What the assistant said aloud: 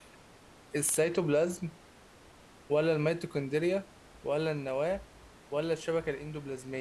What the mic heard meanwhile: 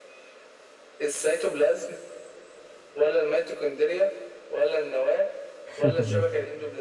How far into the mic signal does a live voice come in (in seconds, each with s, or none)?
5.7 s